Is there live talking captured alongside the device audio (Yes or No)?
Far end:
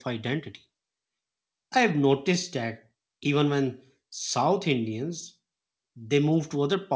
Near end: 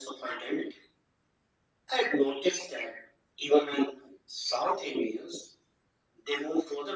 No